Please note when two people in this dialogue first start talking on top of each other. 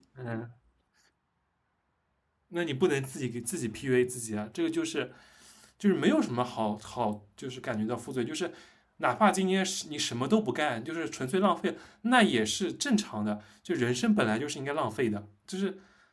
none

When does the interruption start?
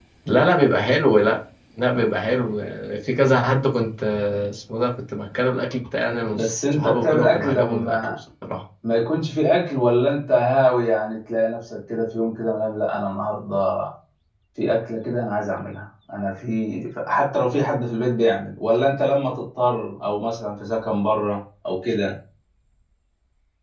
6.3 s

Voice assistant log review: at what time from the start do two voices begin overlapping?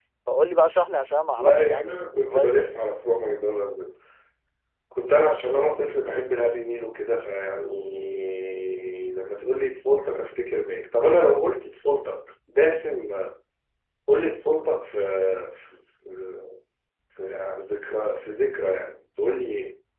1.4 s

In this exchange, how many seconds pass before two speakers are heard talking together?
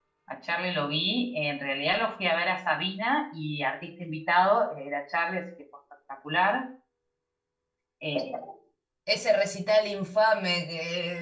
none

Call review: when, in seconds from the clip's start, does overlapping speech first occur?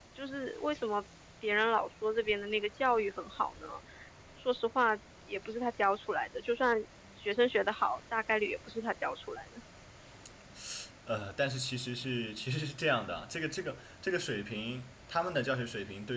none

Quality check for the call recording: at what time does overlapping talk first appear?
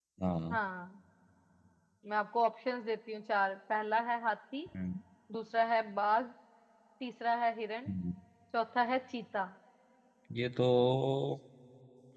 none

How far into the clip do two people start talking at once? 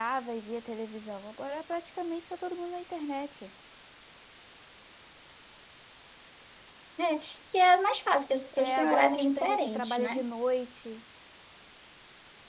8.5 s

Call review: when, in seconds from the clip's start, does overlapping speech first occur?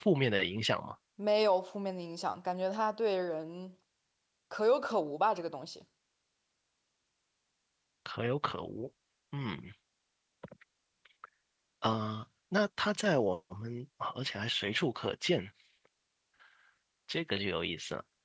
none

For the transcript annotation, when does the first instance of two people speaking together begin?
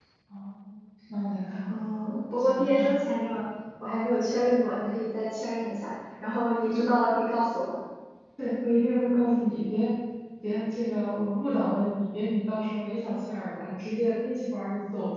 1.7 s

